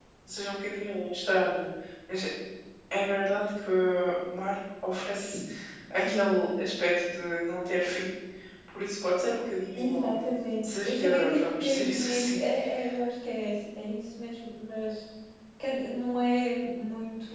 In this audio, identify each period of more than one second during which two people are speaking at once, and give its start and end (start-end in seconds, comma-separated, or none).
10.6-12.4